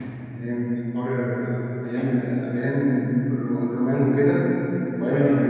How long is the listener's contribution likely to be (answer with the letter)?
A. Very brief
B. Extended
A